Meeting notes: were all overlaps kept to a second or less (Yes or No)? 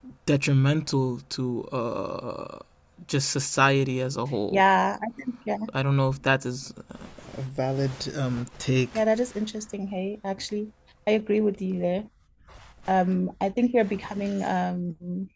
Yes